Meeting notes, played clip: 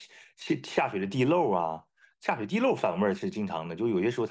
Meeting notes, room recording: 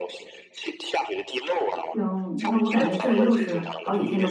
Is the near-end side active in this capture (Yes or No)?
Yes